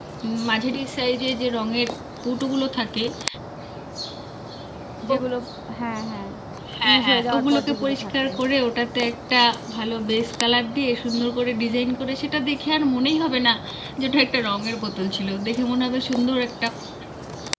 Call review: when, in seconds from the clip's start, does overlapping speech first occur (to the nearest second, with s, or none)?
7 s